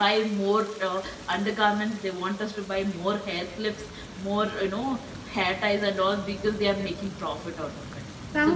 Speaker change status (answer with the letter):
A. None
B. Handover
B